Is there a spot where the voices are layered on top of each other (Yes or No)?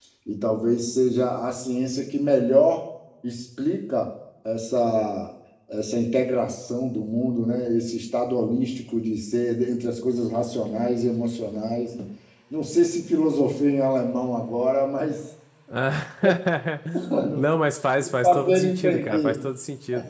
Yes